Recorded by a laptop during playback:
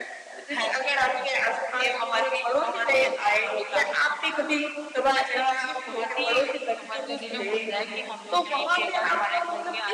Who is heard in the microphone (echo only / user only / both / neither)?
both